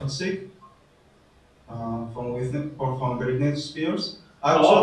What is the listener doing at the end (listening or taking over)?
taking over